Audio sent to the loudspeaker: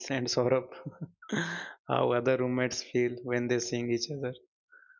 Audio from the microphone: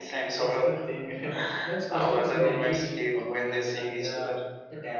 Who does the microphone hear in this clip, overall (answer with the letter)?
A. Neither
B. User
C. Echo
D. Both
D